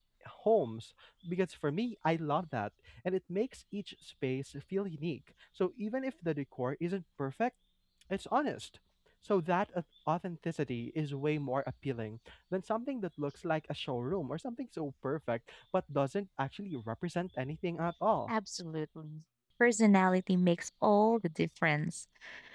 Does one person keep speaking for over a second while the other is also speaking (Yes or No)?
No